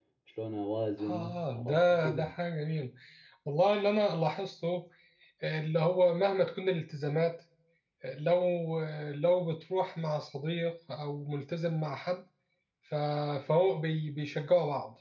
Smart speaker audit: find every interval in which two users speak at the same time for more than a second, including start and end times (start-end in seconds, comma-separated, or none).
1.1-2.3